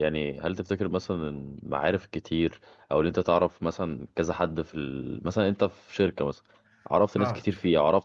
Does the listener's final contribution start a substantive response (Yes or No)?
No